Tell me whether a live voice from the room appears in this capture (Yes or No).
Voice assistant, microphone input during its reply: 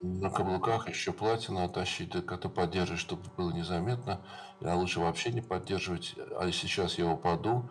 No